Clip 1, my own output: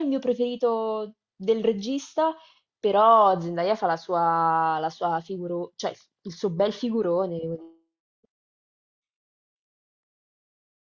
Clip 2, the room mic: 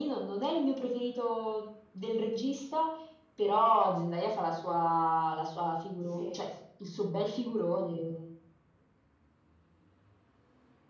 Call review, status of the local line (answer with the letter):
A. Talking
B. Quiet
A